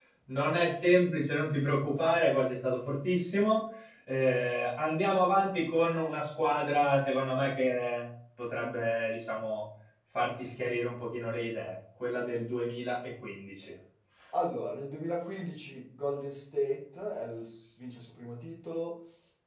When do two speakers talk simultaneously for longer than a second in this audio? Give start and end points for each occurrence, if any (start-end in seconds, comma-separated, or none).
none